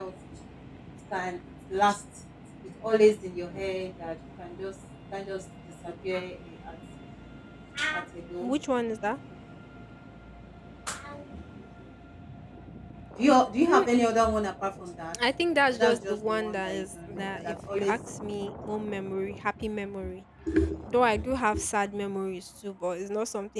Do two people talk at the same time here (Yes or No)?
Yes